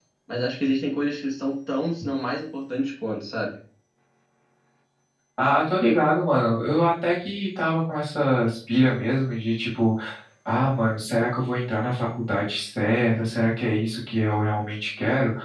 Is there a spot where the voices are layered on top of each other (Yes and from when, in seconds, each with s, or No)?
No